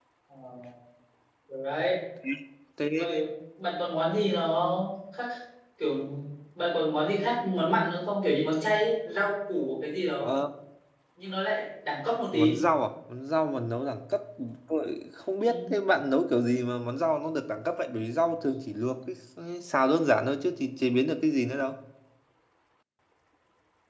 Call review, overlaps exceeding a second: none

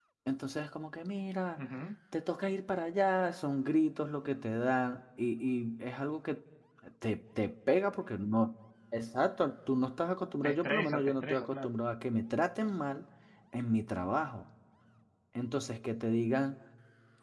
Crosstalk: present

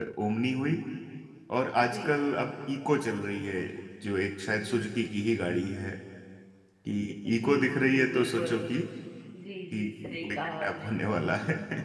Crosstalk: present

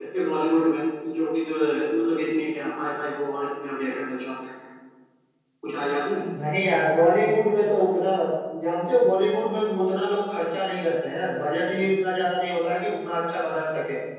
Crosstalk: none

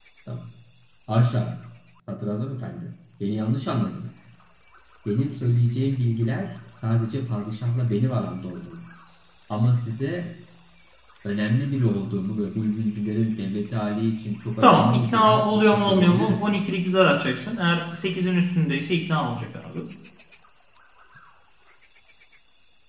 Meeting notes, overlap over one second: present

